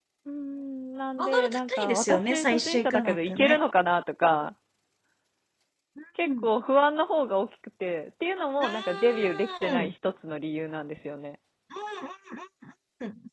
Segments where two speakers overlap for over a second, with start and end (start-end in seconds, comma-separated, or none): 1.2-3.6, 8.6-9.9